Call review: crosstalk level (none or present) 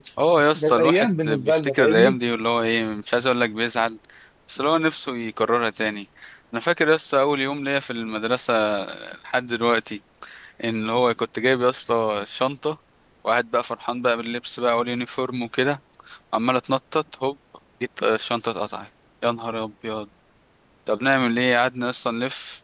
present